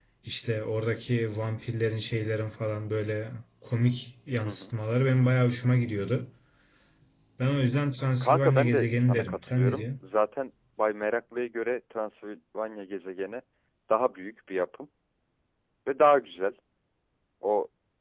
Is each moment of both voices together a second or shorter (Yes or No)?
No